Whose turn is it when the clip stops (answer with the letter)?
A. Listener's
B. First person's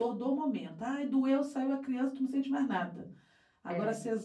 B